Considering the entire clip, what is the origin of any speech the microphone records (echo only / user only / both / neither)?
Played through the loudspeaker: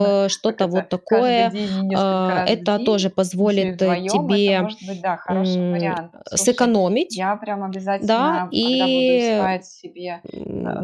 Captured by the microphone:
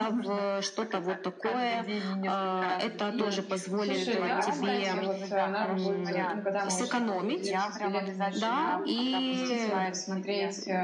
both